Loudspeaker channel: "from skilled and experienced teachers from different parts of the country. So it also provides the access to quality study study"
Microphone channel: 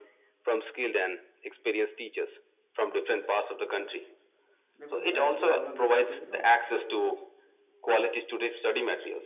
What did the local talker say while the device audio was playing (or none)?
because as we all know that because you know